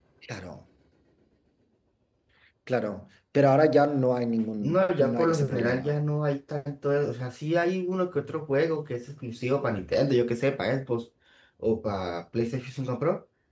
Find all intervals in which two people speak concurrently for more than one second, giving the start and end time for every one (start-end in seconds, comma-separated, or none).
4.6-5.9